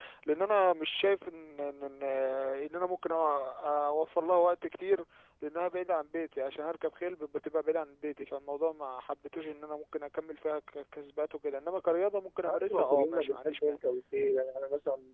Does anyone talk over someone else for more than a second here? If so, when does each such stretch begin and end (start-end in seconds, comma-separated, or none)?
12.5-13.8